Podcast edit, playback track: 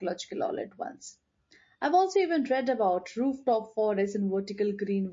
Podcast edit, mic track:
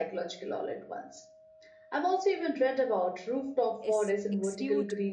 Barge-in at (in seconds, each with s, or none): 3.8 s